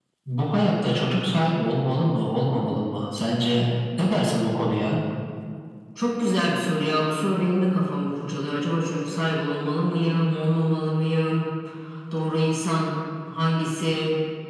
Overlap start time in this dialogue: none

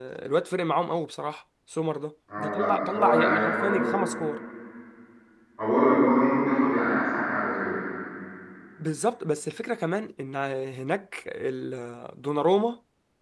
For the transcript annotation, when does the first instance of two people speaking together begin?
2.3 s

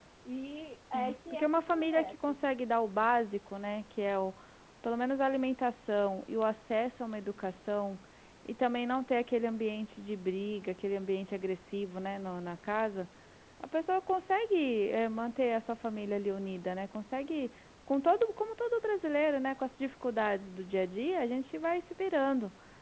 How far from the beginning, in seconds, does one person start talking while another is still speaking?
0.9 s

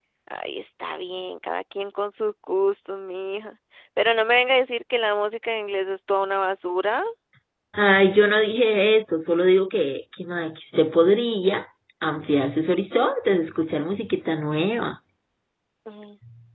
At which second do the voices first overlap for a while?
none

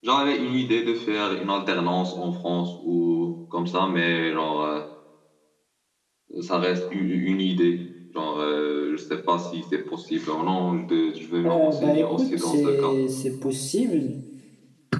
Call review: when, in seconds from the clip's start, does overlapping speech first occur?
11.4 s

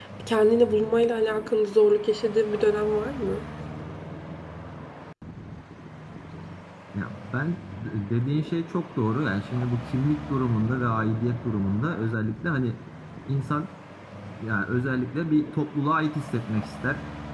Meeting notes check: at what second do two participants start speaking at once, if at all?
none

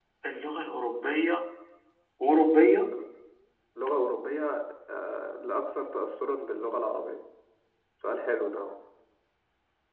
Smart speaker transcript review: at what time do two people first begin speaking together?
none

